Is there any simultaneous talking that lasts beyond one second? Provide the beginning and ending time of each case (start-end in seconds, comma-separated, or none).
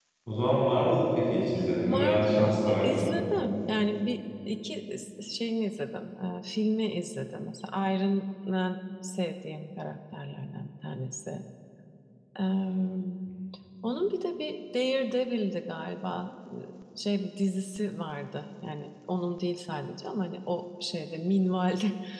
1.8-3.1